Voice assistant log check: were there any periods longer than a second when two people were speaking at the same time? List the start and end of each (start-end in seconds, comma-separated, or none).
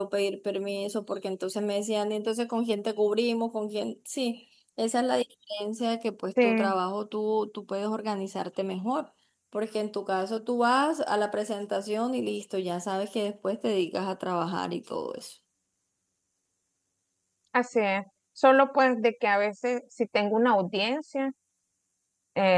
none